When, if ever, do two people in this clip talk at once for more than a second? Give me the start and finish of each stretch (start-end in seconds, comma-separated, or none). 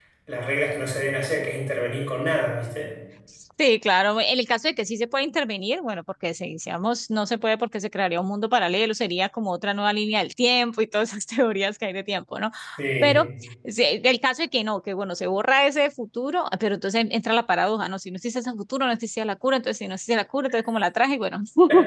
none